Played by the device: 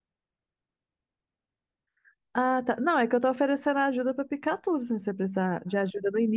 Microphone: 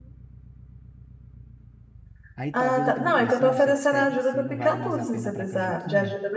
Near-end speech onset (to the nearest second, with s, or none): 2 s